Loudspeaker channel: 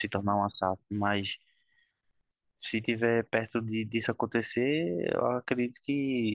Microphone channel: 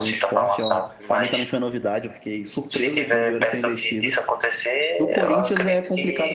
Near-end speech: present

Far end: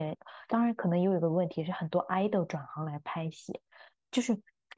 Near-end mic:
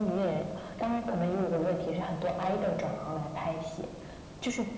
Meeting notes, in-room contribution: none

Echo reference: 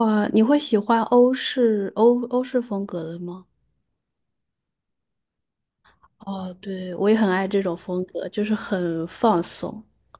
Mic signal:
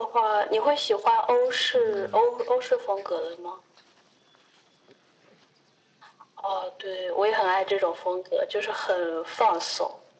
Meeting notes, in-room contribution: present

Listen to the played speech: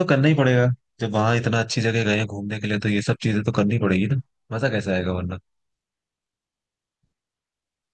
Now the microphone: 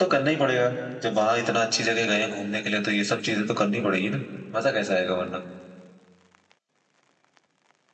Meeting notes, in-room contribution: none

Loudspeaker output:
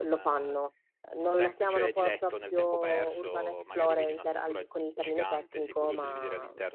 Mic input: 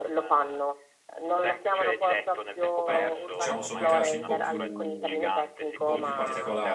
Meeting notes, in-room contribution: present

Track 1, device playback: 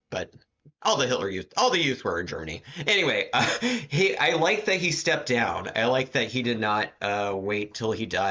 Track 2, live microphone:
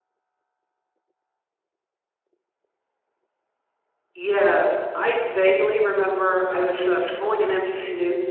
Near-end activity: present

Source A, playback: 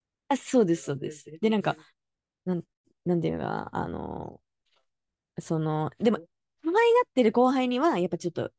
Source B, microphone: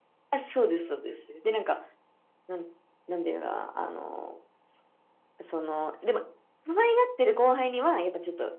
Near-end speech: none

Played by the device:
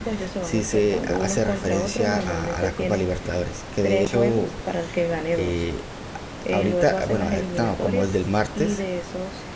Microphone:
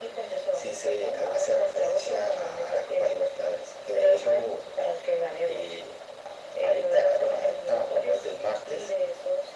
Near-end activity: none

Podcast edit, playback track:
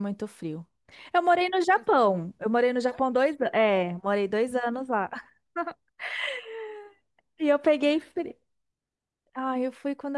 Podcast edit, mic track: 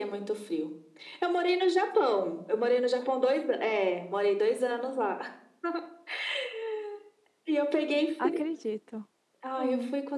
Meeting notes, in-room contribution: present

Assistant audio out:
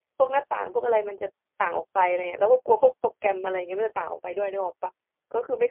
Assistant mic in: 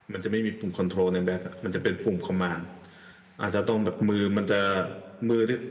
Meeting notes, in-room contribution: present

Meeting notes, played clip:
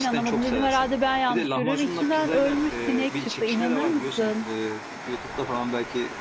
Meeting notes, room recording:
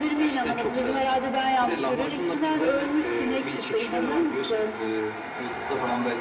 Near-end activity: none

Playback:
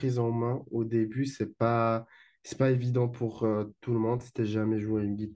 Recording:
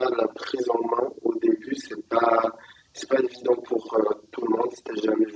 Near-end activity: none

